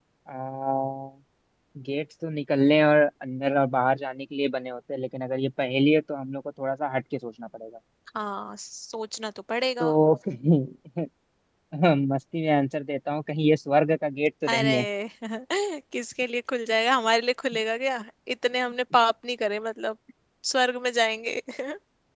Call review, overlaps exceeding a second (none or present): none